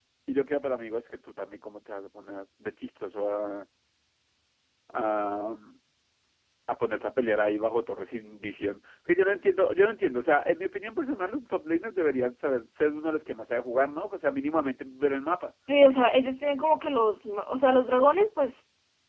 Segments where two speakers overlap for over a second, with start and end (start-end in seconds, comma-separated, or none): none